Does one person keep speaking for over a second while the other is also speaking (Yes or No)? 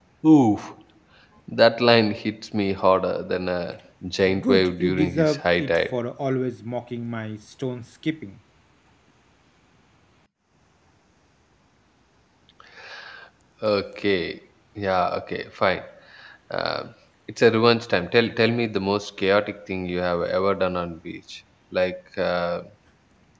Yes